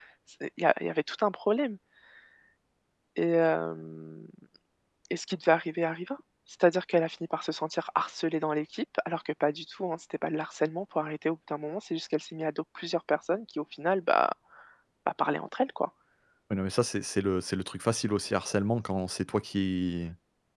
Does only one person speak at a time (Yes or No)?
Yes